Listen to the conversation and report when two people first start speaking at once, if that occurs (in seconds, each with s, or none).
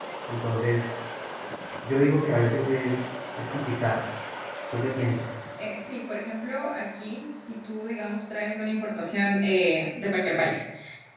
none